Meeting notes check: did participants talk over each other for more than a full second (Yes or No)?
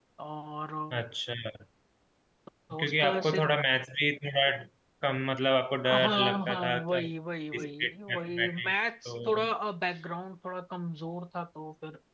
Yes